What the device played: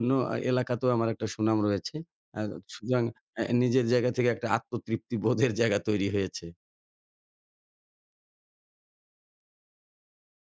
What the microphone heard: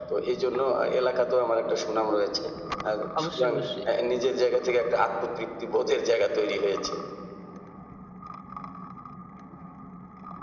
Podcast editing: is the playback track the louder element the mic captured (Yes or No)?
Yes